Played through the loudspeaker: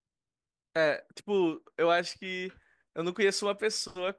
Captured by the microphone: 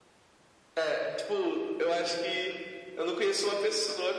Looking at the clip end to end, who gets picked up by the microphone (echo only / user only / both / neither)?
echo only